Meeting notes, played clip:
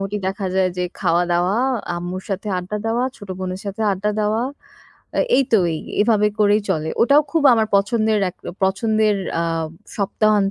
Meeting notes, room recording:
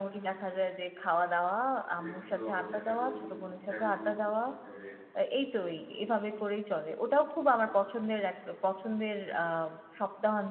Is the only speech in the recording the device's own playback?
No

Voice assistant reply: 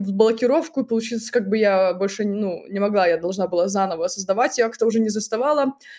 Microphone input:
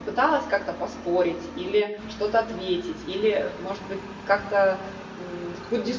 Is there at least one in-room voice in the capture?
Yes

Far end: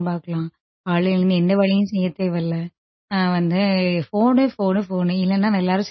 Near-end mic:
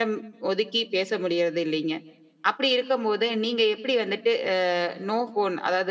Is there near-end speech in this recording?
Yes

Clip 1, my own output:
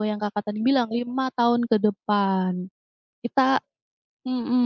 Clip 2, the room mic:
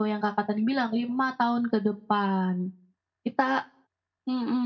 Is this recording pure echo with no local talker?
Yes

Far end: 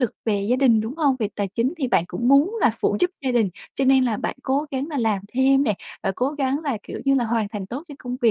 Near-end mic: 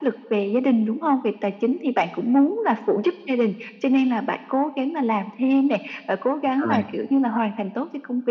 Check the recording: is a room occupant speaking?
Yes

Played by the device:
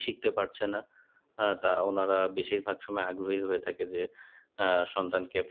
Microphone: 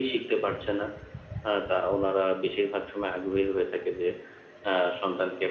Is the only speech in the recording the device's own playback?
Yes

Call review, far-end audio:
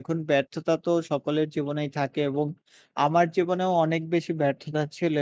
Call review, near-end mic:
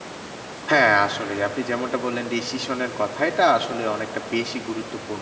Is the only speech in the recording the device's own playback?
No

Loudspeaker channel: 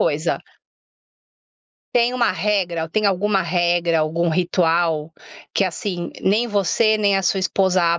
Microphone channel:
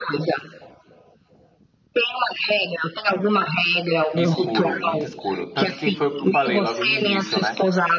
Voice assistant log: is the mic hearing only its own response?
No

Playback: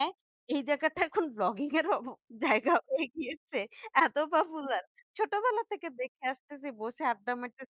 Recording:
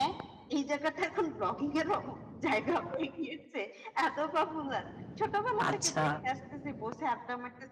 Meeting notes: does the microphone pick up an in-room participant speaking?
Yes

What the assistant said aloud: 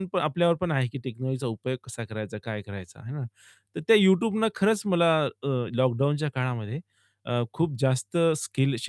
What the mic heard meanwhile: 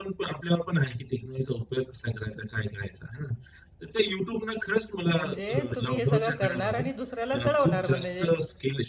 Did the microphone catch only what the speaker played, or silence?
No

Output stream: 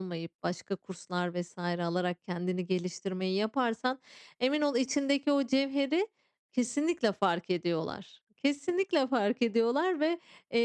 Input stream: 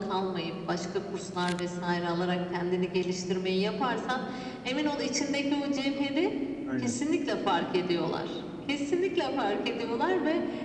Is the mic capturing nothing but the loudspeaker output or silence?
No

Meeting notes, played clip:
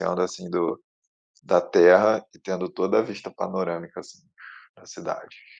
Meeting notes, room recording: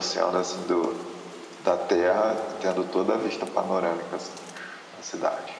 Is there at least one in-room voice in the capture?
No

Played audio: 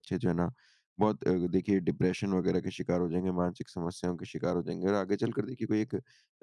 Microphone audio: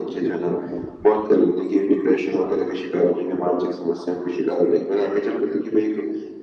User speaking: No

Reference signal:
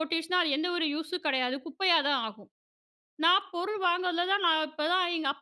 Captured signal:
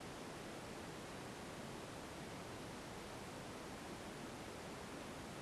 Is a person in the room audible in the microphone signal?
No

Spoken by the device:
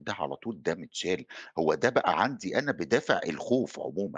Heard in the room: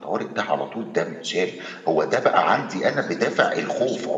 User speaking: Yes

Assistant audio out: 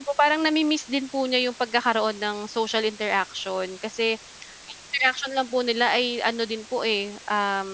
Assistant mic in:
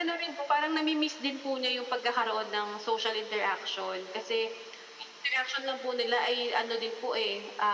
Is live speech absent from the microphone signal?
Yes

